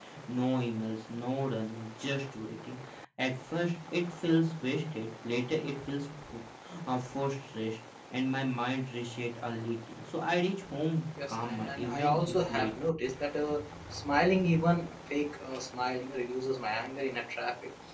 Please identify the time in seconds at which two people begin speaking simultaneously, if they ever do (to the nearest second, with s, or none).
11 s